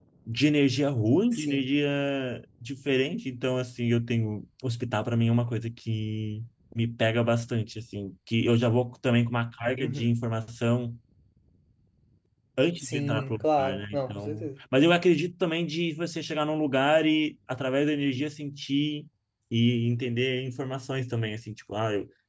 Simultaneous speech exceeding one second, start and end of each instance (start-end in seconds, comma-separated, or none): 12.8-14.5